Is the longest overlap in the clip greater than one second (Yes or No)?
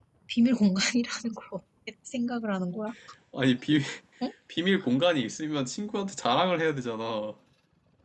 No